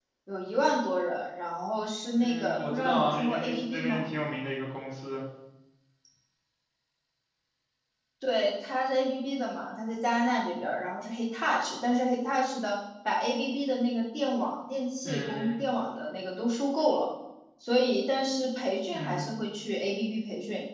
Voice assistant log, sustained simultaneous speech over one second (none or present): present